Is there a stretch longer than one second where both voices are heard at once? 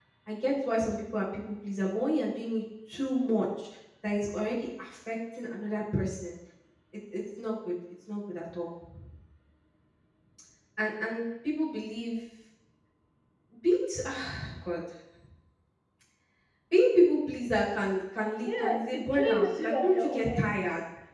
Yes, from 18.4 s

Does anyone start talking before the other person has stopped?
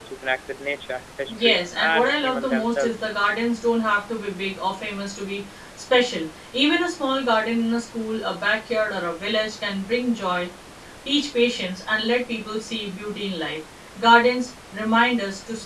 Yes, from 1.3 s

